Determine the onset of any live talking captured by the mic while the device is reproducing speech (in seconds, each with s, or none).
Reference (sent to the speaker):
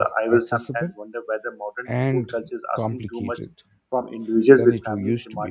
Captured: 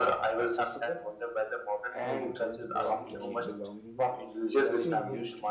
2.0 s